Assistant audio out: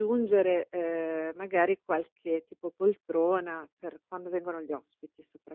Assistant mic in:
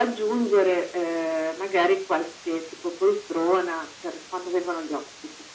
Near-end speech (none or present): none